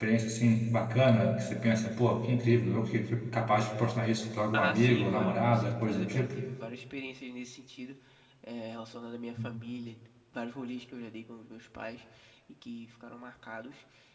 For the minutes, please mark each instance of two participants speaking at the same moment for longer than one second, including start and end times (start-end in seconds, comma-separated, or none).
4.5-6.3